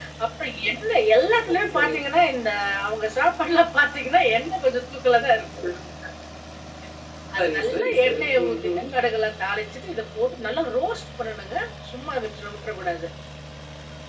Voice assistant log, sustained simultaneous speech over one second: present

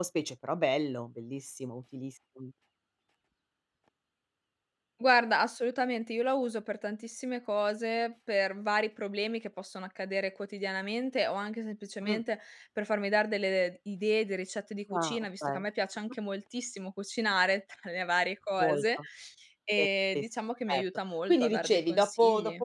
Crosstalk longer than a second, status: present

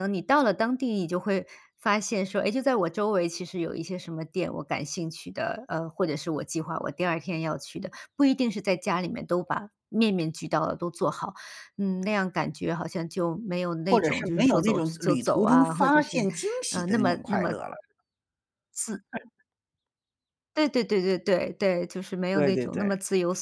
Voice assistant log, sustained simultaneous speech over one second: present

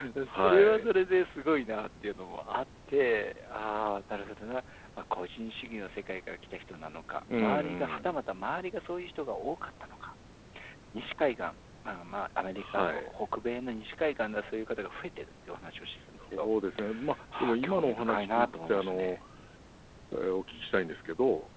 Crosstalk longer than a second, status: present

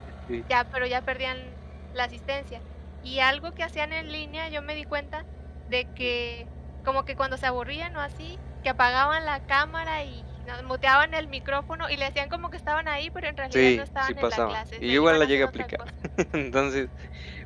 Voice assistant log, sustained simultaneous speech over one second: present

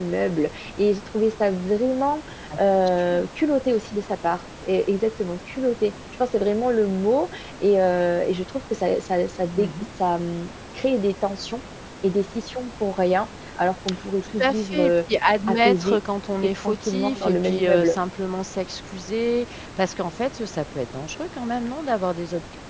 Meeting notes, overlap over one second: present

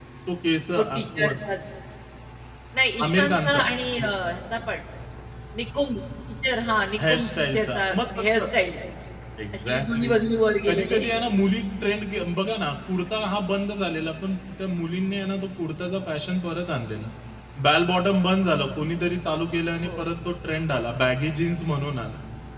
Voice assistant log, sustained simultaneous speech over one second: present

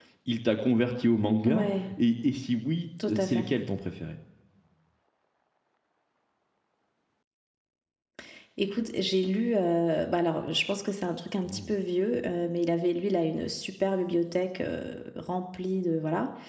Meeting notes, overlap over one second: none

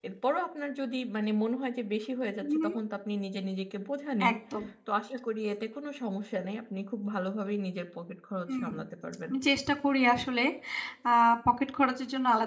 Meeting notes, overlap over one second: none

